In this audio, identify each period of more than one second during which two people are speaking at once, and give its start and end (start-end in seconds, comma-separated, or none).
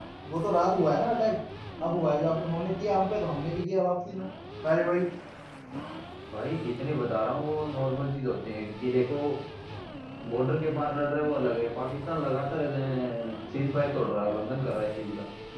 none